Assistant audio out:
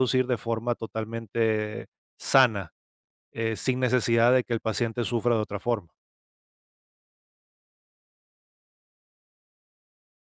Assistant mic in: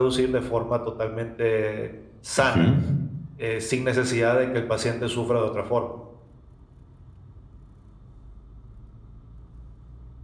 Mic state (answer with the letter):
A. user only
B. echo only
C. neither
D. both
D